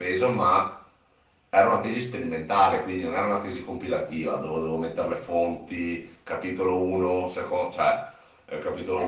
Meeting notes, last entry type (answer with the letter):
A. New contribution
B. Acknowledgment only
A